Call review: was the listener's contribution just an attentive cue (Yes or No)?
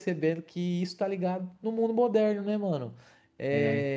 Yes